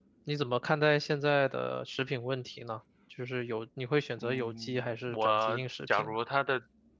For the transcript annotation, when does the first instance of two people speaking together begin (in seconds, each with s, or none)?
4.2 s